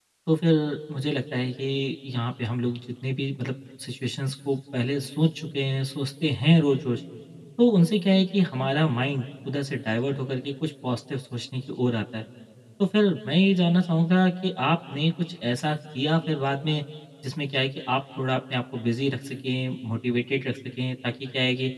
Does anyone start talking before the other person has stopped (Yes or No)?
No